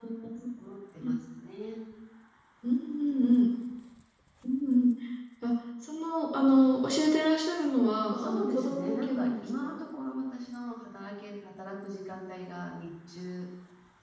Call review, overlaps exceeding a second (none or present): present